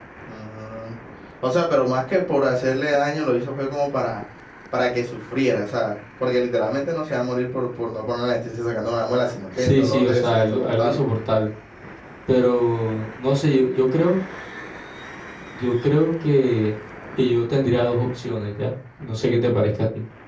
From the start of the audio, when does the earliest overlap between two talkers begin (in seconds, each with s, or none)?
9.6 s